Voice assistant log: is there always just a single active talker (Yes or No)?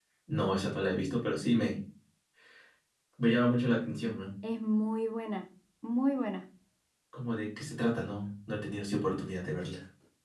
Yes